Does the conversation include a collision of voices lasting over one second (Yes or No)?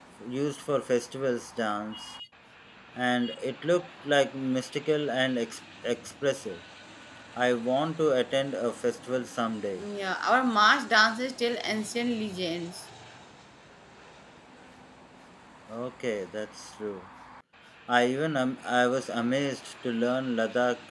No